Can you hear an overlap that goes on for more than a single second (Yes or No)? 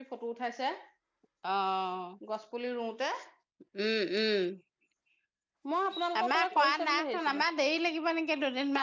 Yes